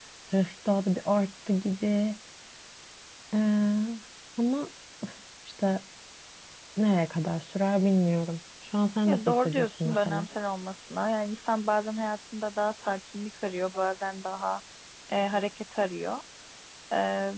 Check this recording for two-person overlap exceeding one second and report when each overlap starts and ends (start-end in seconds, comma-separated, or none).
9.0-10.3